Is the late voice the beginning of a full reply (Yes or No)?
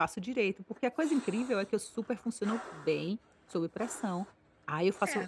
No